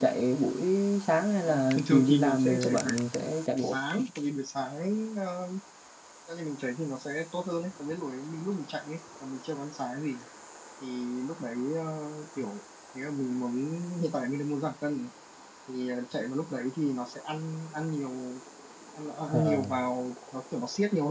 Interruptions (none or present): present